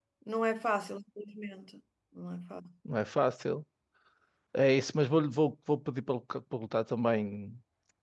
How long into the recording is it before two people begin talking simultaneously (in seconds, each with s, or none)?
none